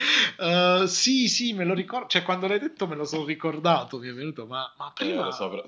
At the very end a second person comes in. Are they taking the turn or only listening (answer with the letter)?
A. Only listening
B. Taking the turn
B